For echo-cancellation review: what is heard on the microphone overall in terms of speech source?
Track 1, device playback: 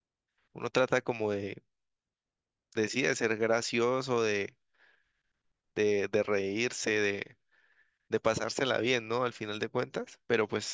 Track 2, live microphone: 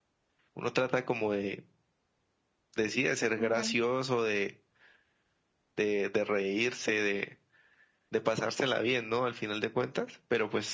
both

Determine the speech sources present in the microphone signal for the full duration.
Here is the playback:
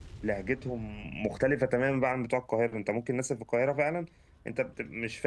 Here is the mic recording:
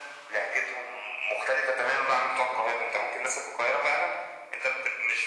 echo only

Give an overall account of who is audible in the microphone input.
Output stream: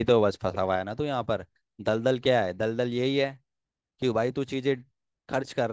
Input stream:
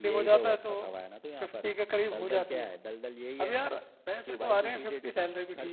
both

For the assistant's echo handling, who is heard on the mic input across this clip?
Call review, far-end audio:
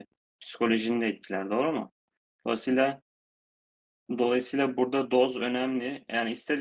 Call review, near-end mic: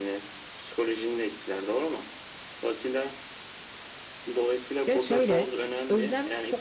both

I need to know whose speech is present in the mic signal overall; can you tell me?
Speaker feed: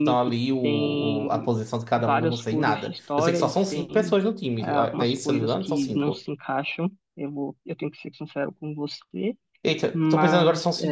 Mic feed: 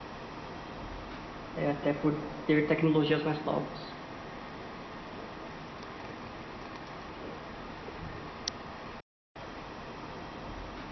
user only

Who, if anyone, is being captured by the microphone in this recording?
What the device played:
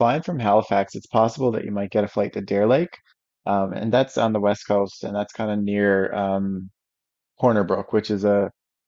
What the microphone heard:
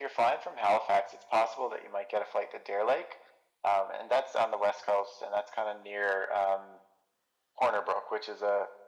echo only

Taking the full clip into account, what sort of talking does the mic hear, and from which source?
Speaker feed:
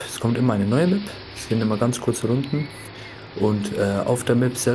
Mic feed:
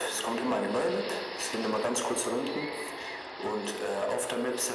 echo only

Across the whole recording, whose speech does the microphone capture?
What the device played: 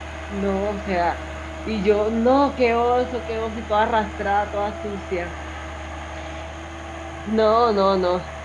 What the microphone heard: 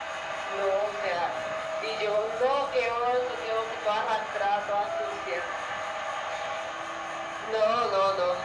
echo only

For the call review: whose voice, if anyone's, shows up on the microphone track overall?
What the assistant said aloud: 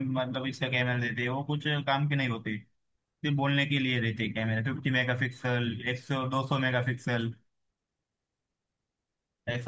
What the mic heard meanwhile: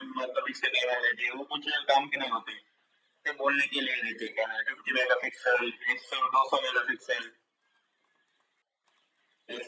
echo only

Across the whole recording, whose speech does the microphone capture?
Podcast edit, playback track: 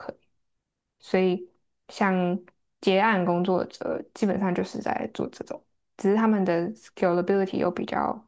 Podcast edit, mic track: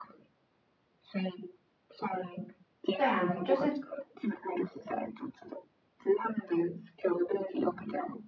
both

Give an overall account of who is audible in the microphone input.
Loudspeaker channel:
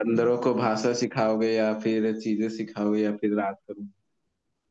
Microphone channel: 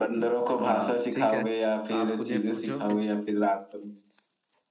both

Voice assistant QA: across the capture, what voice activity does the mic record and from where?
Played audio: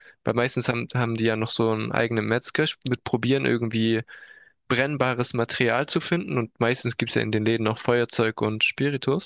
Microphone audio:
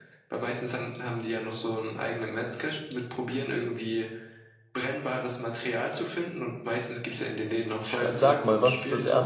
both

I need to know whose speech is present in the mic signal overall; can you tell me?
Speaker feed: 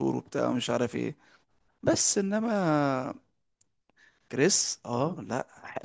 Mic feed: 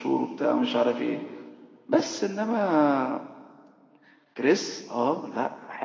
echo only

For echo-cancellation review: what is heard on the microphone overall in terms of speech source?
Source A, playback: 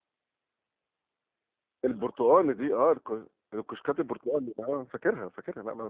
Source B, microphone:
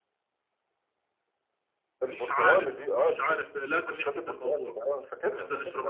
both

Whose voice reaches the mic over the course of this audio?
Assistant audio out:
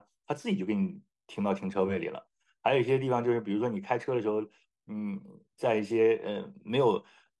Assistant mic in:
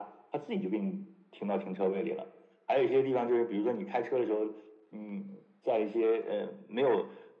echo only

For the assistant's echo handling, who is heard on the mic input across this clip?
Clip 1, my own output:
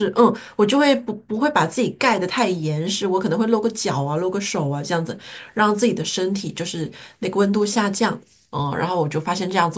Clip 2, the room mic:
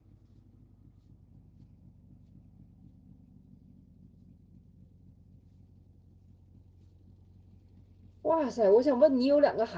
user only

